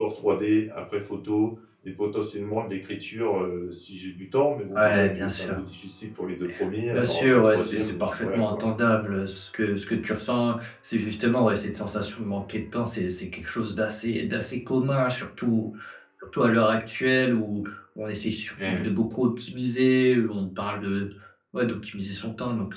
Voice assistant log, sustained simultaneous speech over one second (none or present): present